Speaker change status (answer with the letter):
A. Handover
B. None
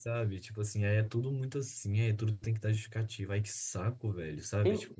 A